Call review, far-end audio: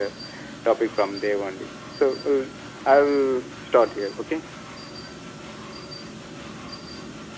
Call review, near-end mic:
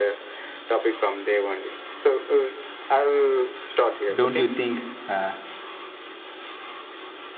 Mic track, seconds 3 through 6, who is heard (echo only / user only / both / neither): both